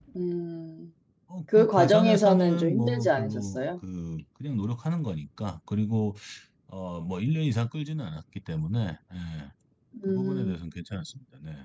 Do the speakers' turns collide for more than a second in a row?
Yes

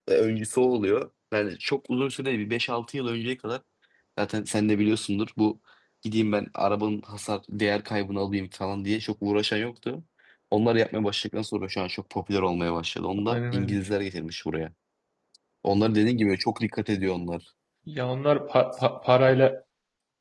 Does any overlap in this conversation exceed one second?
No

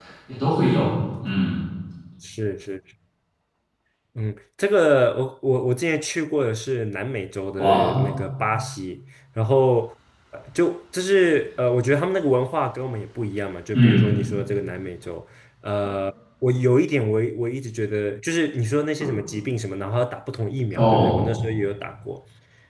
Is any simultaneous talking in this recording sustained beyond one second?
No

